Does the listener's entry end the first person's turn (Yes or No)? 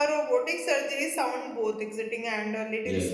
No